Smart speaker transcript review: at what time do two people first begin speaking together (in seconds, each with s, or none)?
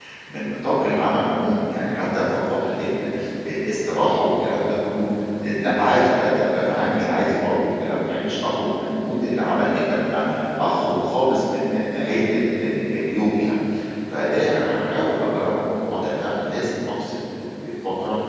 none